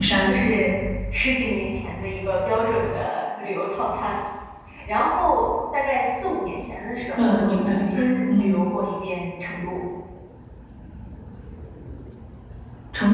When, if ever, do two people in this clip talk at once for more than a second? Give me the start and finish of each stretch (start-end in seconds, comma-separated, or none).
7.2-8.6